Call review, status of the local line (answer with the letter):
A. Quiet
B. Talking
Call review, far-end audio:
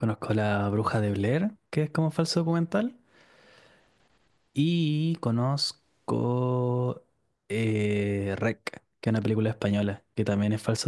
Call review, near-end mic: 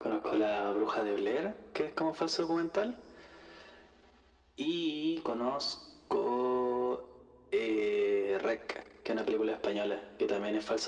A